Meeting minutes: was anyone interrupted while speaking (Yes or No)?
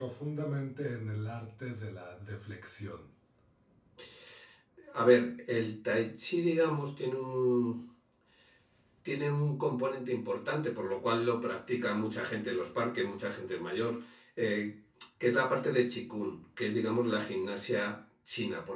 No